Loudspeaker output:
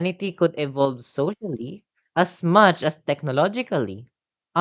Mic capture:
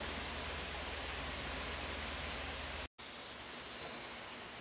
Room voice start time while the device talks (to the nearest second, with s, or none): none